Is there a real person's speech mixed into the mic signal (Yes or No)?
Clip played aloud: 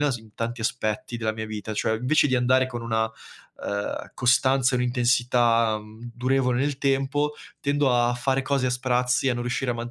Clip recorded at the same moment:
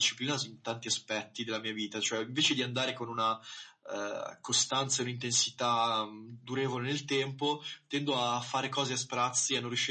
No